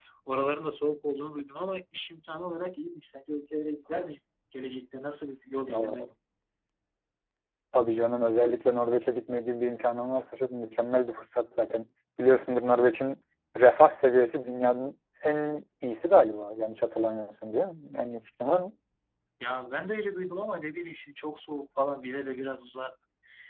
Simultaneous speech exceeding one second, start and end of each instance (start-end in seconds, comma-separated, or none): none